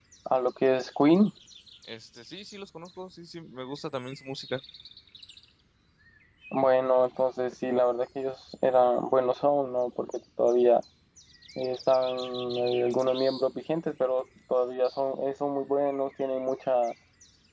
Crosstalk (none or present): none